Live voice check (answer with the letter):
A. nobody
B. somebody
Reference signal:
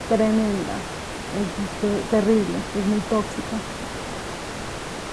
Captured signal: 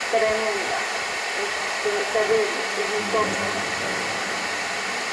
B